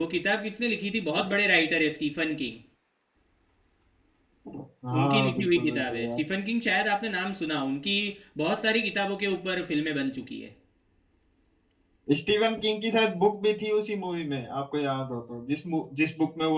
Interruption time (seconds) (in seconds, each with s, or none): 5.0 s